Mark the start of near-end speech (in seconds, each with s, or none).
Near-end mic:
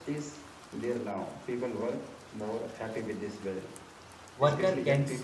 4.3 s